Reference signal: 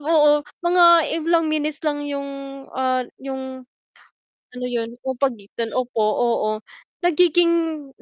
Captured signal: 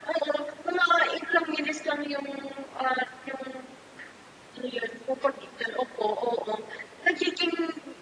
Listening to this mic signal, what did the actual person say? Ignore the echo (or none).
none